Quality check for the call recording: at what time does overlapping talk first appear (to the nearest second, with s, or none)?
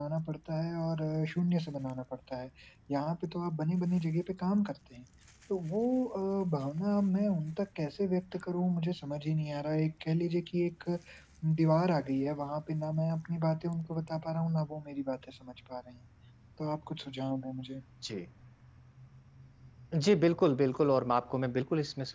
none